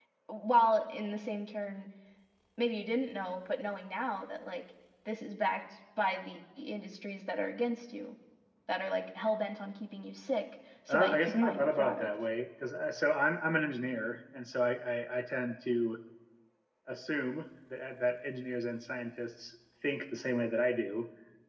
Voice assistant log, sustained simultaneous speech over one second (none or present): present